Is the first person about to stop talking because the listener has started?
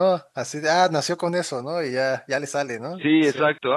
Yes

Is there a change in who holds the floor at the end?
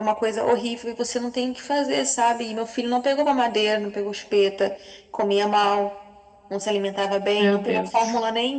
No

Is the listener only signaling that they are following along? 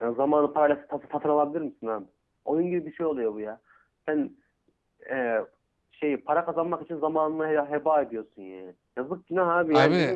Yes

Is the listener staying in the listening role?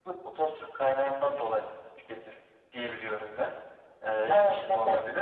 No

